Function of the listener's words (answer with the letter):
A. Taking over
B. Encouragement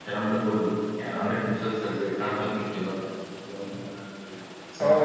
A